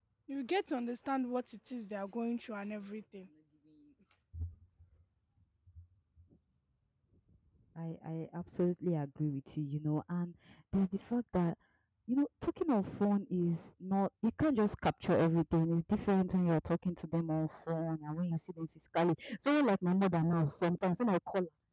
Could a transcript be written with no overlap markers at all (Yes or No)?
Yes